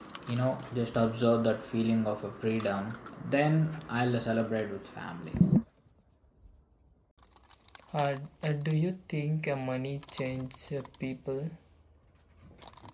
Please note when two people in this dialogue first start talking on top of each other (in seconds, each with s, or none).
none